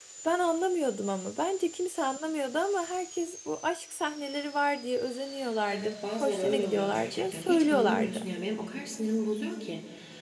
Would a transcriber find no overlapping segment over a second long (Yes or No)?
No